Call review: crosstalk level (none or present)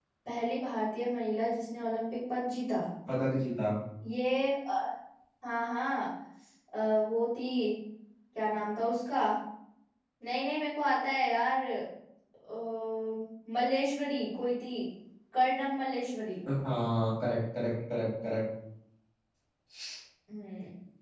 none